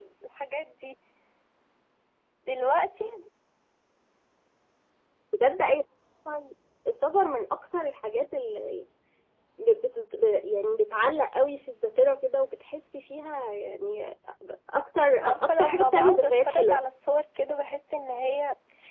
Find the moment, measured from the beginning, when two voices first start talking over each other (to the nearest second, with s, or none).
15 s